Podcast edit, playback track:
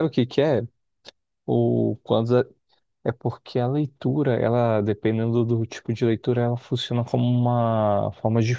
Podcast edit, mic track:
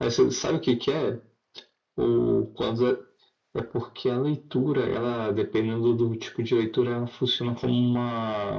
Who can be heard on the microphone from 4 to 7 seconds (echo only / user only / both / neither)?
echo only